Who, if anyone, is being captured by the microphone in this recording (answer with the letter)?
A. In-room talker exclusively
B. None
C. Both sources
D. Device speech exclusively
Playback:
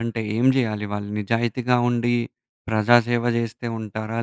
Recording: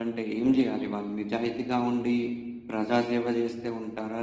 D